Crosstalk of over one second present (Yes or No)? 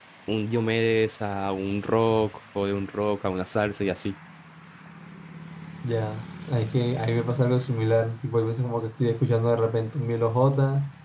No